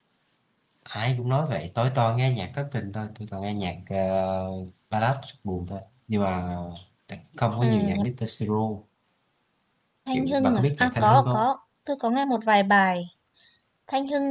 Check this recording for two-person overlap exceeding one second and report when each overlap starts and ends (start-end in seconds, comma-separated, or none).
10.1-11.5